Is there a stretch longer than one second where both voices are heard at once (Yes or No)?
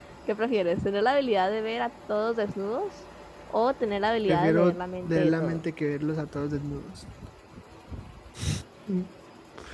Yes